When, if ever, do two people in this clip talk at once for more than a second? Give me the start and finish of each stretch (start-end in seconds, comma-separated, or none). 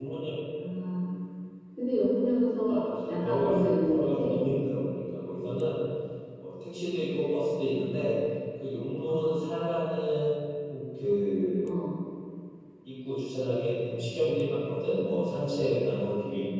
2.7-4.4